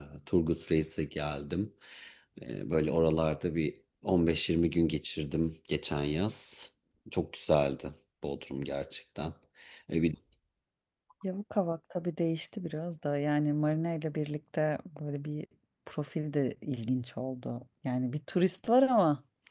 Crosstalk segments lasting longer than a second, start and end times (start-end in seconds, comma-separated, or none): none